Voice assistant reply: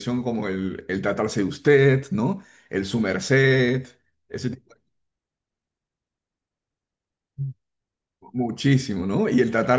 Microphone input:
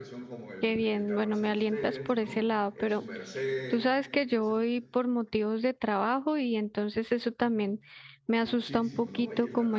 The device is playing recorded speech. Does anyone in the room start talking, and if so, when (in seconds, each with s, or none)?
0.6 s